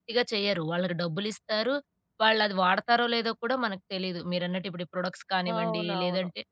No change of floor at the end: Yes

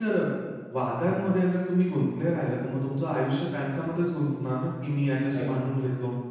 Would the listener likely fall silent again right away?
Yes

